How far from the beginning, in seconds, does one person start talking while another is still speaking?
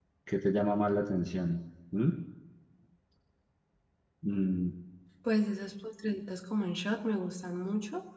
none

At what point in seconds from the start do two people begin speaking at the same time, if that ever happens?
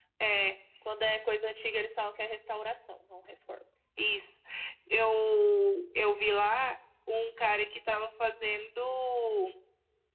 none

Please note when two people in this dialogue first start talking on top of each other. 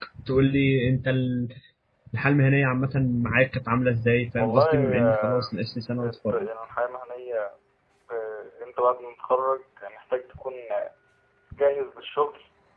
4.4 s

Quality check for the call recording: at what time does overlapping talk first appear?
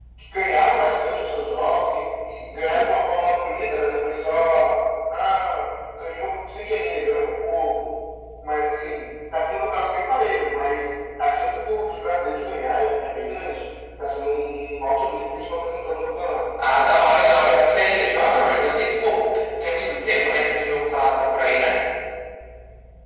none

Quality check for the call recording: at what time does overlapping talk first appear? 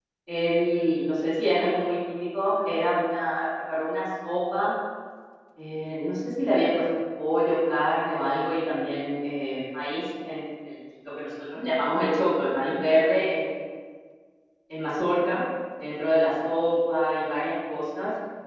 none

